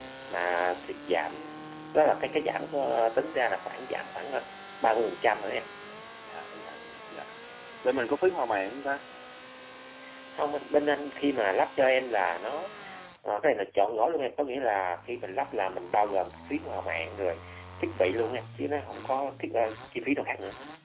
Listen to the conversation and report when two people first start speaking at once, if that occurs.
none

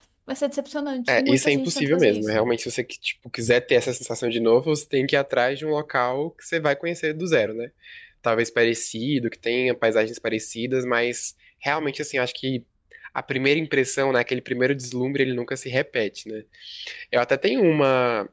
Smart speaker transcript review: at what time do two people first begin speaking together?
1.1 s

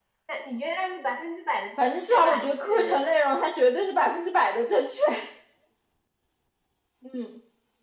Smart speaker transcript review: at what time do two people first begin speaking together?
1.8 s

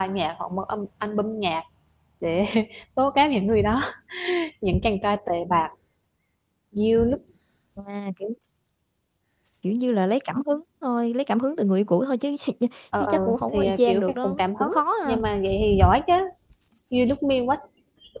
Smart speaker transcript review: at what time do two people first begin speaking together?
13.0 s

